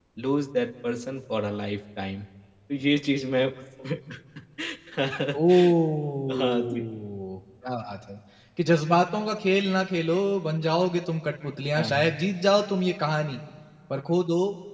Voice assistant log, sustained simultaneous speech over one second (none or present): none